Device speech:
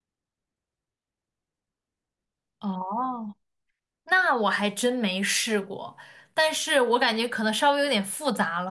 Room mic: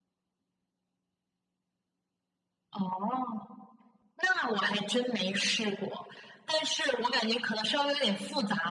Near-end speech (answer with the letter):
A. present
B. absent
B